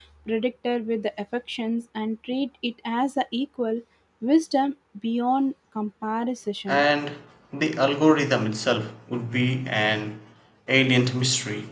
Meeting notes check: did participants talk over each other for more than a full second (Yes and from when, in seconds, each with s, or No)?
No